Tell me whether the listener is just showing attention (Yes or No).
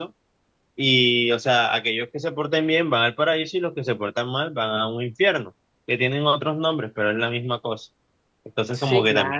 Yes